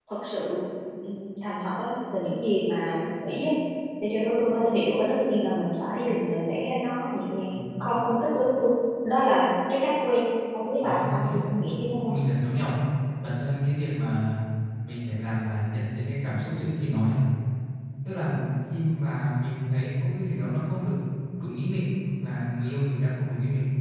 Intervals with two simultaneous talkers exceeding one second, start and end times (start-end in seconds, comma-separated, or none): 10.8-12.2